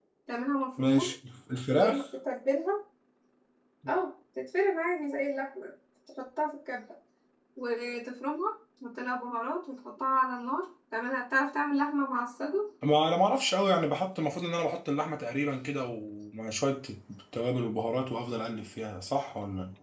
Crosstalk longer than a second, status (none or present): none